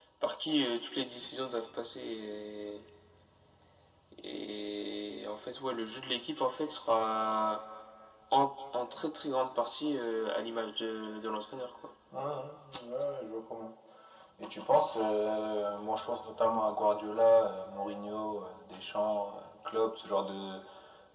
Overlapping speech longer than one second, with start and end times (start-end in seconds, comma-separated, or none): none